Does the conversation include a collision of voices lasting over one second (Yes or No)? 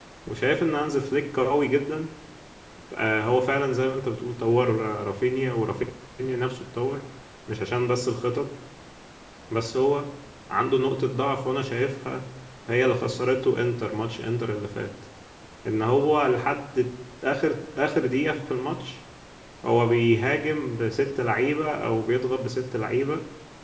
No